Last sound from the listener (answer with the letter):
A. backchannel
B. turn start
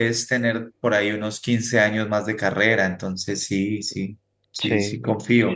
B